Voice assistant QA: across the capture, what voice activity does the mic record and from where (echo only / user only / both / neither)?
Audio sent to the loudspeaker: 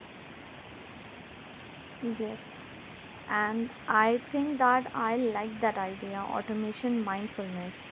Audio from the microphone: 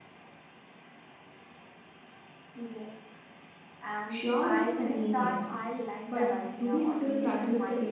both